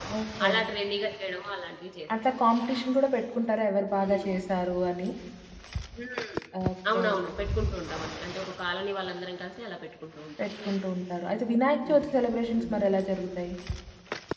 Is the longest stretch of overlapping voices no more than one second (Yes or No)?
Yes